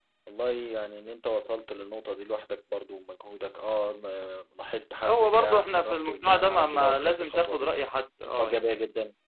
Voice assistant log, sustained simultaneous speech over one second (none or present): present